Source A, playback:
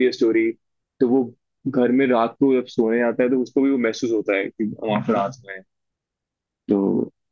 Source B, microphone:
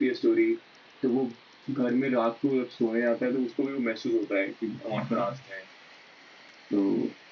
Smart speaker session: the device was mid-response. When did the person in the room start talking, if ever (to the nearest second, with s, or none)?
none